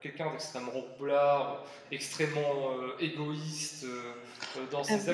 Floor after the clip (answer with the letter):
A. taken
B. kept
A